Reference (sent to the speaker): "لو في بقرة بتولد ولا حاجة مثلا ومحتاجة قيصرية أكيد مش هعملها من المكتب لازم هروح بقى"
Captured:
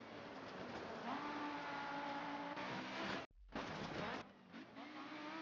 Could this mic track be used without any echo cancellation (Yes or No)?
Yes